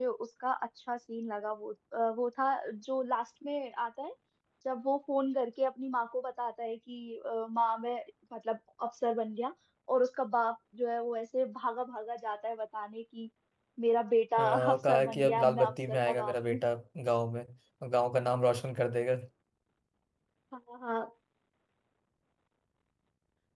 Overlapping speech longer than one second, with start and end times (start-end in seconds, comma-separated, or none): 14.4-16.6